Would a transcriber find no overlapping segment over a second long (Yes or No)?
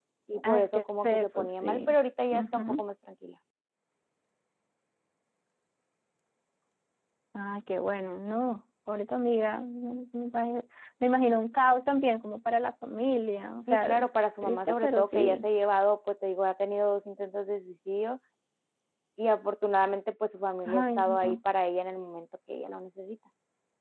No